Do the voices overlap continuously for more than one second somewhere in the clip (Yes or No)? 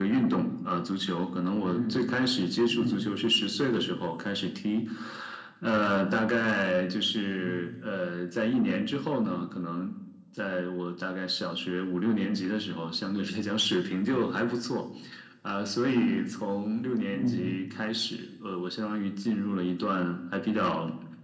No